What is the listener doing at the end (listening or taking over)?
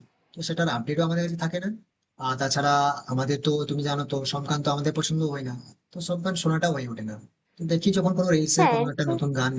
listening